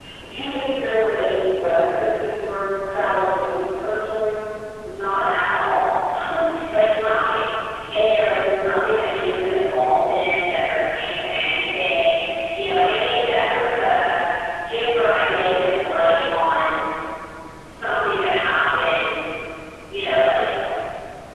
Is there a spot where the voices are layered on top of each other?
No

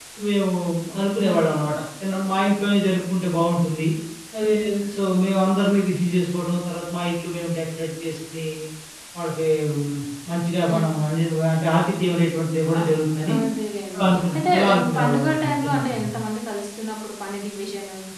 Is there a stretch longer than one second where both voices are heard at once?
Yes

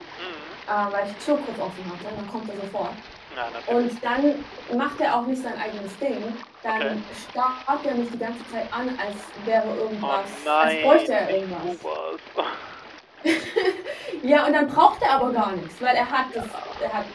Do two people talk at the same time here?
Yes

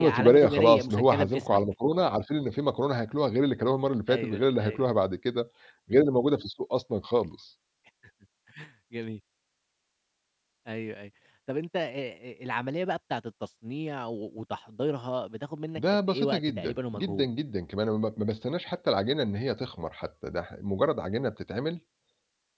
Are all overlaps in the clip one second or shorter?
No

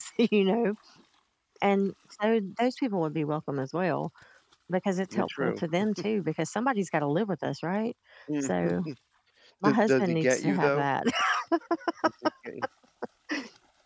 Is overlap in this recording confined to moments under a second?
No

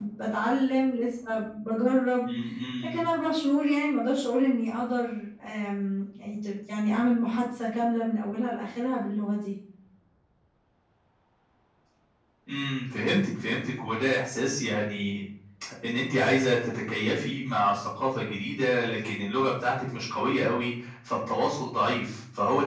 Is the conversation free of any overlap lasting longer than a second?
Yes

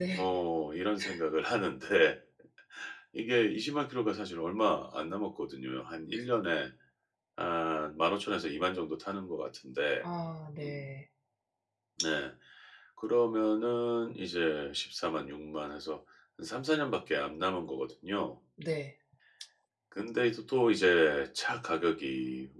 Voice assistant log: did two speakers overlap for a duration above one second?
No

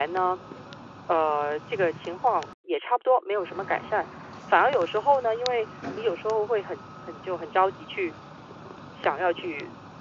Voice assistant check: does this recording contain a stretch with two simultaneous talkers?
No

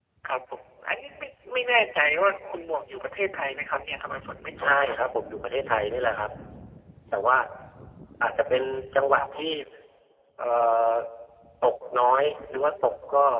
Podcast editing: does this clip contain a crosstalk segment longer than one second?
No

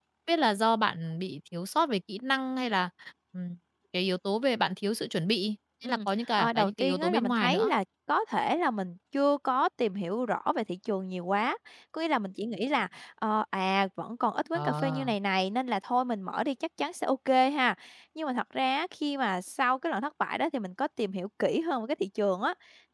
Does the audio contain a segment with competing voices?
Yes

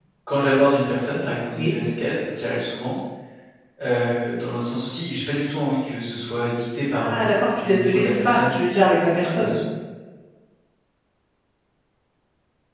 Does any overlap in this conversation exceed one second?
Yes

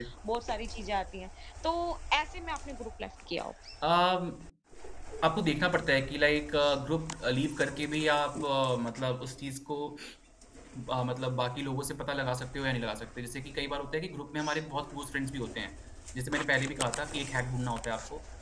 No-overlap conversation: Yes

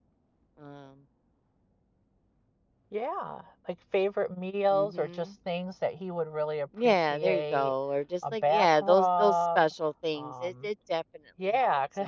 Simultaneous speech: Yes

